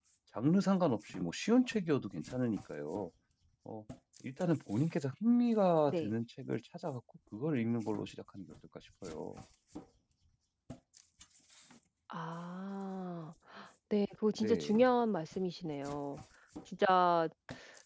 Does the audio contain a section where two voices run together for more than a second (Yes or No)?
No